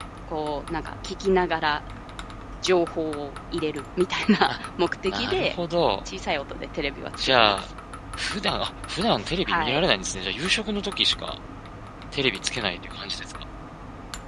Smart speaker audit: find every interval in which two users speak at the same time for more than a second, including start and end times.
none

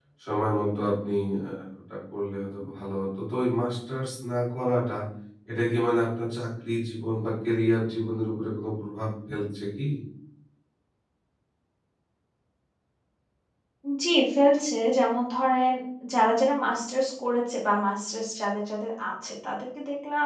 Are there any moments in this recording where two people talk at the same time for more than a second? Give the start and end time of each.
none

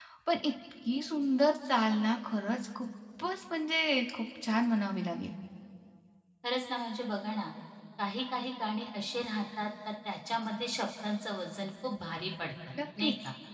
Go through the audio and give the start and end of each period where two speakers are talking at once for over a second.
none

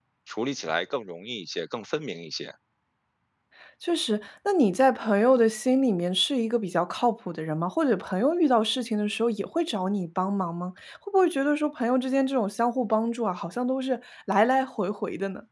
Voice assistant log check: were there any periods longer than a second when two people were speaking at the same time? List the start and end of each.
none

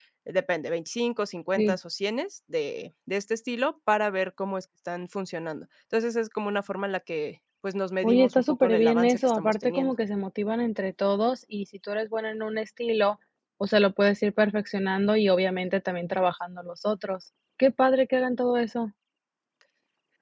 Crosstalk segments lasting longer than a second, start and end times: 8.0-9.9

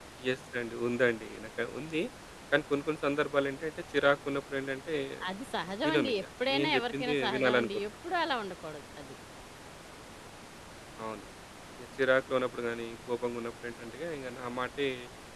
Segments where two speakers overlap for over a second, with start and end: 5.9-7.8

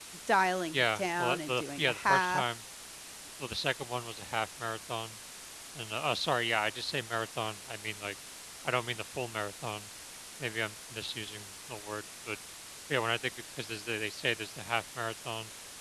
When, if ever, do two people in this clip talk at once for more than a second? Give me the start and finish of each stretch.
0.7-2.5

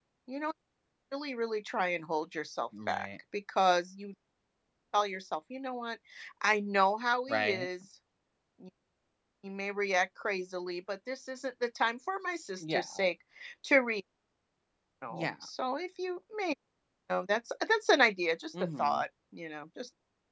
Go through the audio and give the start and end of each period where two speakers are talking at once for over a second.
none

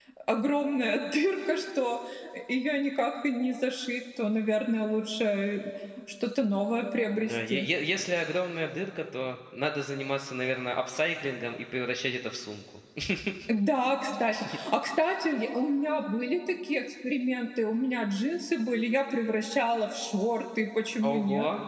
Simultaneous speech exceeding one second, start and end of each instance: none

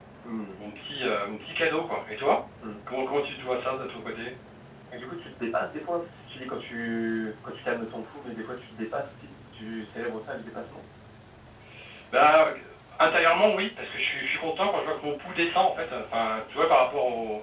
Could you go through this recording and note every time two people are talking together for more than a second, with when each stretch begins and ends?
none

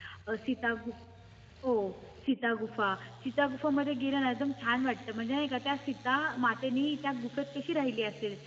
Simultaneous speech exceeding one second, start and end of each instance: none

